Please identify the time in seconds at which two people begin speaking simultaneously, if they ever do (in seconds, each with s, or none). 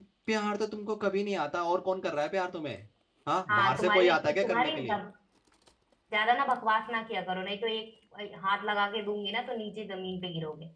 3.5 s